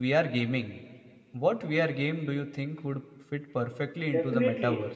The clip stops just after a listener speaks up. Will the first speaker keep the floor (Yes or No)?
No